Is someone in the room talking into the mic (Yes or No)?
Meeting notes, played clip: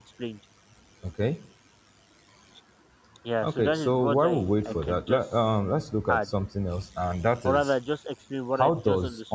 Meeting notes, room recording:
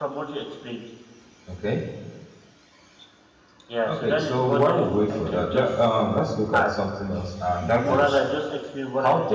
Yes